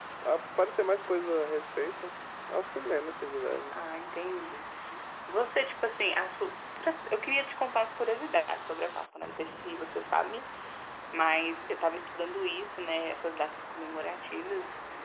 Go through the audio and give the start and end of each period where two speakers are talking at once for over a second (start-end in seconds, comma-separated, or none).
none